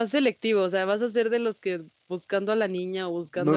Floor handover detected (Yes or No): Yes